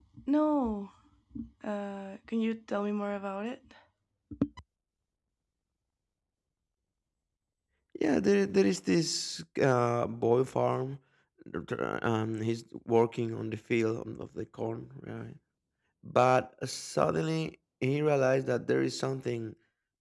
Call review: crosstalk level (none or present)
none